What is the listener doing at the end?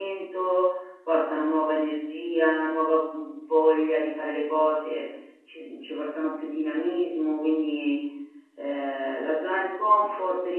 listening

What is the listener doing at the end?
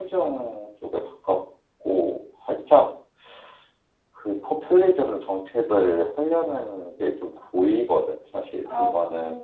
taking over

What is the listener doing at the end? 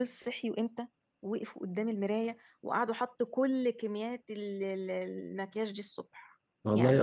taking over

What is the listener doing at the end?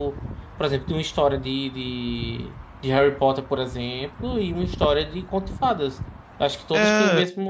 listening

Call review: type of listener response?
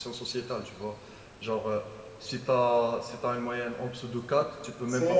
taking over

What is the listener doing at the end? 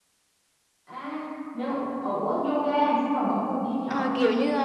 taking over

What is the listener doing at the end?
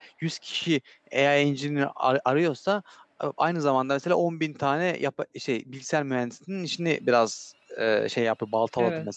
listening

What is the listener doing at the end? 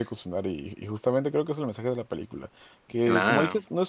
listening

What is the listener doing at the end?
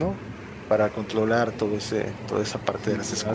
taking over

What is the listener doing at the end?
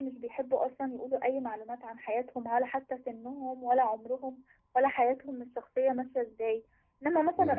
listening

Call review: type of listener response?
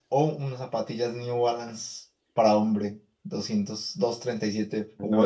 taking over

